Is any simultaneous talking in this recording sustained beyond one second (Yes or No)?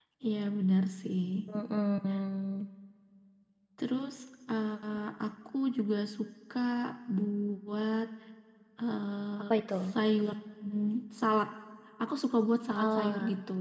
No